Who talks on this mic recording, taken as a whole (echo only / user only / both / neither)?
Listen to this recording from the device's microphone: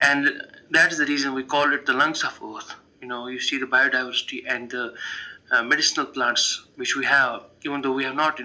echo only